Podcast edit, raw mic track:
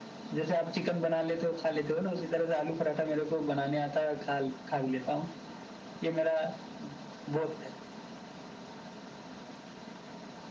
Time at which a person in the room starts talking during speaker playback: none

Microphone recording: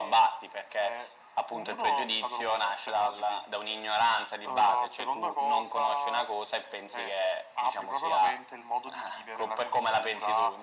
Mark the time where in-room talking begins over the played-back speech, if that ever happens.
none

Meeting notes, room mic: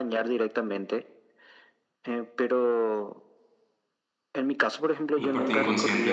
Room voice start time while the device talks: 5.2 s

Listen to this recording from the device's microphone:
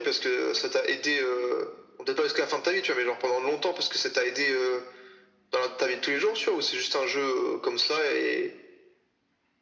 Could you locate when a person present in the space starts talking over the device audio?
none

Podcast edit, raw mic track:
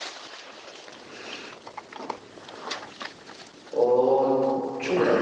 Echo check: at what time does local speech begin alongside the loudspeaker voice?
3.7 s

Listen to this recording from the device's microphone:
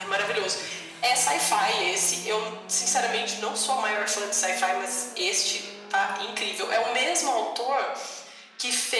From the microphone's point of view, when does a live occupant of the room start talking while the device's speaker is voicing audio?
none

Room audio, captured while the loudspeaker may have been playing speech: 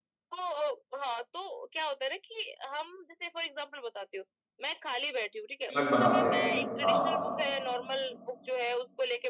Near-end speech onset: 5.7 s

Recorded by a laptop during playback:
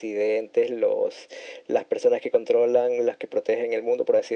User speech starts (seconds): none

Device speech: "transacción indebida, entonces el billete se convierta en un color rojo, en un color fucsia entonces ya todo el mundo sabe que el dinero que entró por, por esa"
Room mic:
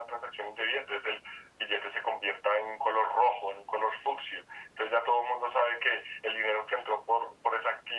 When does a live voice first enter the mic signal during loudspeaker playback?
none

